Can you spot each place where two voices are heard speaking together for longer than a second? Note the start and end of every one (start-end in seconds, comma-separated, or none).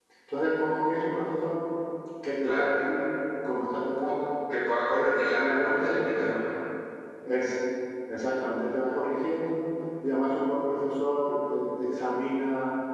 4.9-6.4